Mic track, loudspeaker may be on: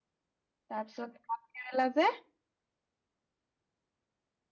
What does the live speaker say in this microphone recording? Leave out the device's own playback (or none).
তাৰ পিছত ভাত কেৰেলা যে